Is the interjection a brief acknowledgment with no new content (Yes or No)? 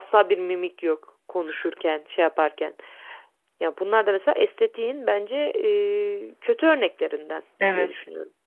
No